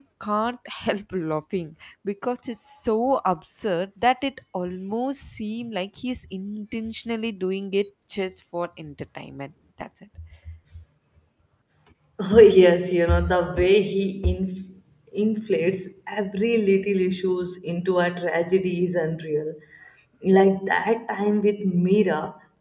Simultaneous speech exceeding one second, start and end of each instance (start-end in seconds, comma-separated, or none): none